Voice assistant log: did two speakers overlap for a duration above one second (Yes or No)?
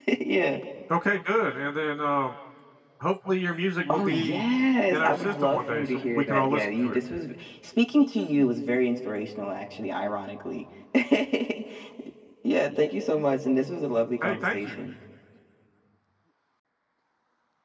Yes